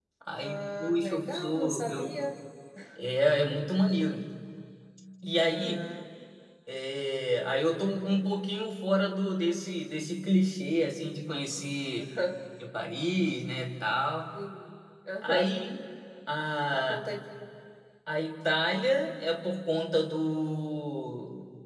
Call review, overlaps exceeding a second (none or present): present